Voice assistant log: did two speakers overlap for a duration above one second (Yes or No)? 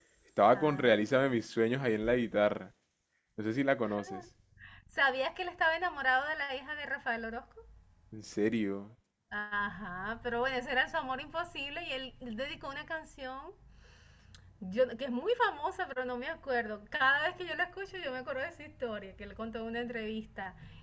No